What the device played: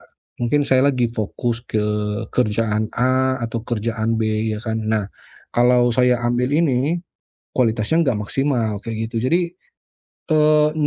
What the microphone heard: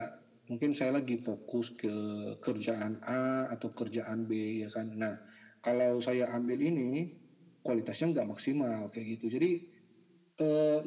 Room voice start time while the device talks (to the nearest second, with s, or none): none